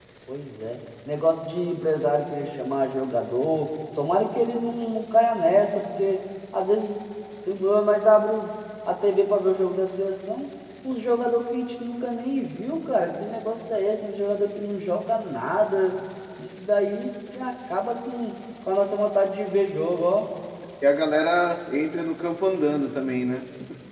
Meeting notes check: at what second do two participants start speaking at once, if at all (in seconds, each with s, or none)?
none